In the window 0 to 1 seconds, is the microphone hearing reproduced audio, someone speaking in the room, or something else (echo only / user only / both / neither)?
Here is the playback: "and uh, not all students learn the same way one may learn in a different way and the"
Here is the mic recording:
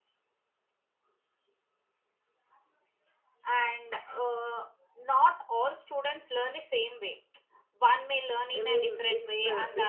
neither